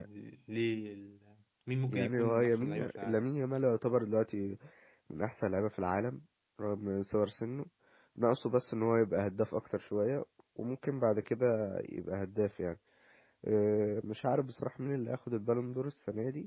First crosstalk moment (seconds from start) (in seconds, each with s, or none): 1.9 s